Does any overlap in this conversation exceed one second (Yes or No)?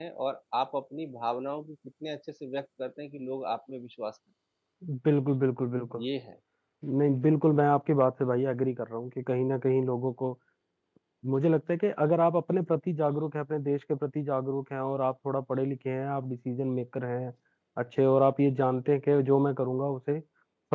No